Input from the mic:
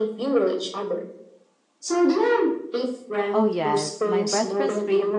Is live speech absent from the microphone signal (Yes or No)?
No